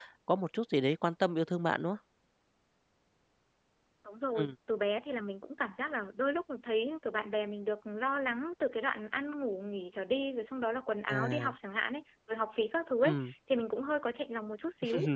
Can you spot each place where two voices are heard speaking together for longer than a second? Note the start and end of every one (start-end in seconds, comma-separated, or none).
none